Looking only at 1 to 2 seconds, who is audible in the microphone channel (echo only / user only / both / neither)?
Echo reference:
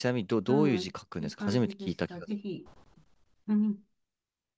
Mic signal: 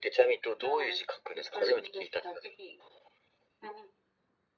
echo only